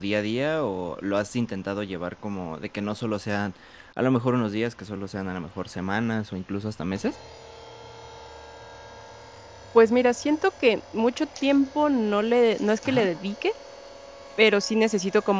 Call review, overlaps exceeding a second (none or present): none